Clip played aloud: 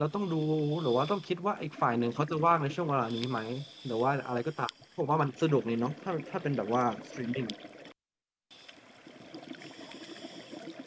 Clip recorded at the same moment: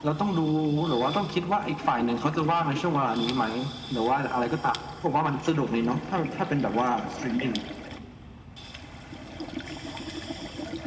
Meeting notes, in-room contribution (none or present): none